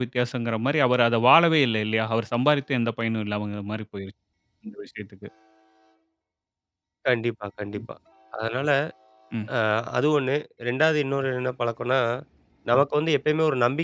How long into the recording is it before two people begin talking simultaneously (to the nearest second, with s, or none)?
none